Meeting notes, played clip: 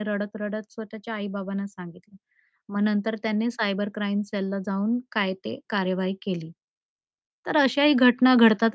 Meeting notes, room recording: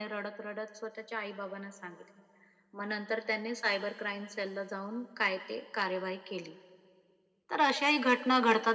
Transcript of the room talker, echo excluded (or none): none